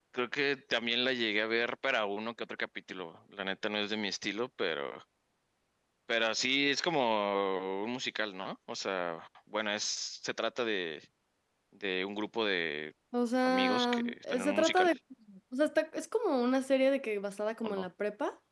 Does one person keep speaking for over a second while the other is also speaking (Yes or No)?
Yes